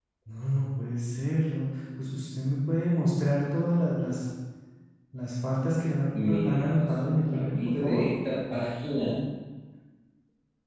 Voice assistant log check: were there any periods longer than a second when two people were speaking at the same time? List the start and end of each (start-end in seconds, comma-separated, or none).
6.2-8.0